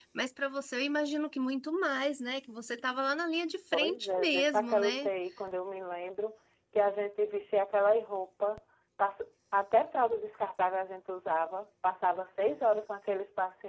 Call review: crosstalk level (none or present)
present